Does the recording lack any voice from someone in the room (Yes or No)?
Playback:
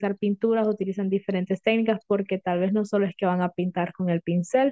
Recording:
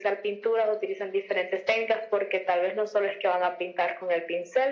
Yes